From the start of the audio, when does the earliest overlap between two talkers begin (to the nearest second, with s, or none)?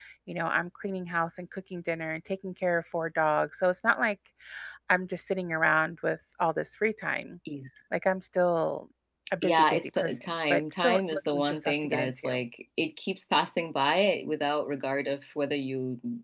9 s